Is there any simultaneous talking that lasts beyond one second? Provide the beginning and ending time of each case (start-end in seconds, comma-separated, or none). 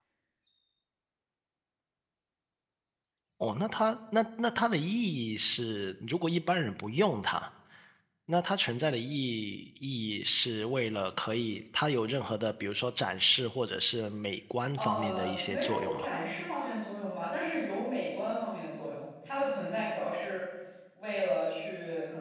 14.8-16.1